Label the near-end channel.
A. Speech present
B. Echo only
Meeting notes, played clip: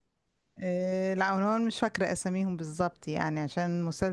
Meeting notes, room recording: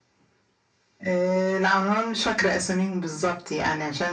B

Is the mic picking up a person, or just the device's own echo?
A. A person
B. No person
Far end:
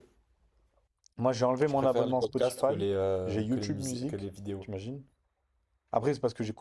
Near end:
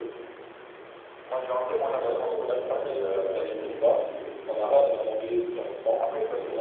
A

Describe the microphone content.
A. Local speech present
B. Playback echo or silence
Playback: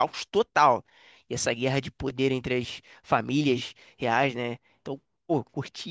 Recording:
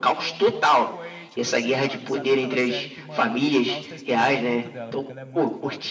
A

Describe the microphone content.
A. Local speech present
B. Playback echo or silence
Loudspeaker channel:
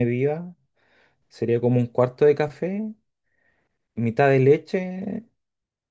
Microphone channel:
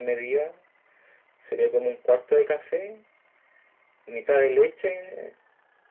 B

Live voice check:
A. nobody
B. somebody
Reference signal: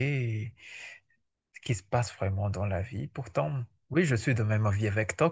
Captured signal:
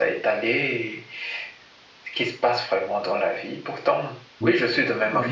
B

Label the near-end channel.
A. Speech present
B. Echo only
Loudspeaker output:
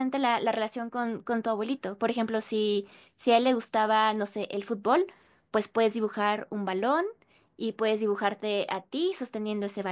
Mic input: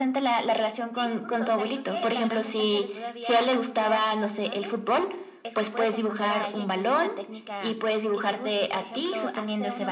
A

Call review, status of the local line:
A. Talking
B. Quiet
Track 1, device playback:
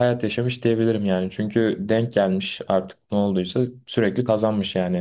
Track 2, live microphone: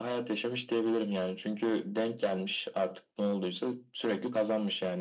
B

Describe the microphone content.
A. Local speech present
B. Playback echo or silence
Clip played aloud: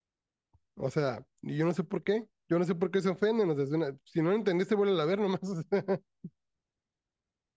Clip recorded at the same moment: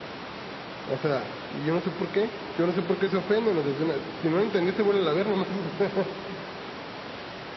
B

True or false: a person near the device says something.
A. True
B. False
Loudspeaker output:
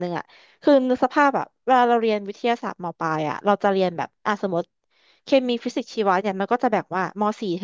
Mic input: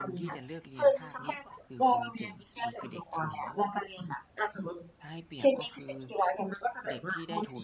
A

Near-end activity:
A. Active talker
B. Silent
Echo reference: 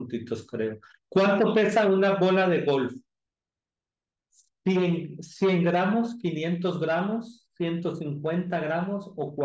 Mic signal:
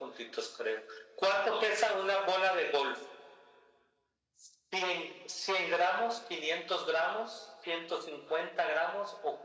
B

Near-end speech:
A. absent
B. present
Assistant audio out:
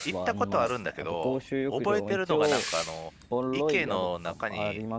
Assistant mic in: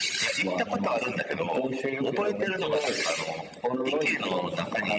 A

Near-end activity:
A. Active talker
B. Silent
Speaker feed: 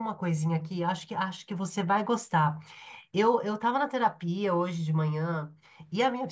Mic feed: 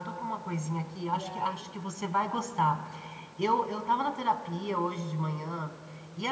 A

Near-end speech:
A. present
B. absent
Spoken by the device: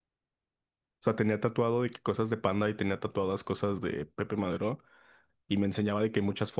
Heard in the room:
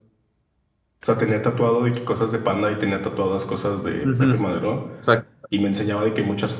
A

